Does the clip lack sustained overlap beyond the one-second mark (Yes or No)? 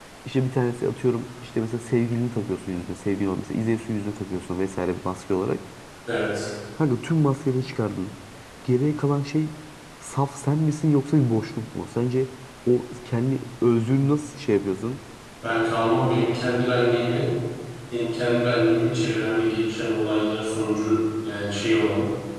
Yes